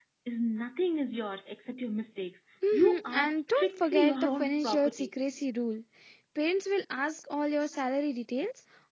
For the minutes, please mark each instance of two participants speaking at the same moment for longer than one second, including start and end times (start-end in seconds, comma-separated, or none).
2.7-5.1